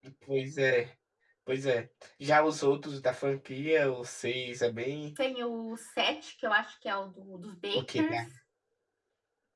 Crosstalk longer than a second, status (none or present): none